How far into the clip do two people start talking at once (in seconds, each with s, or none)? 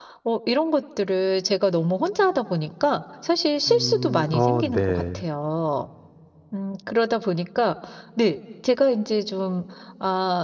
3.7 s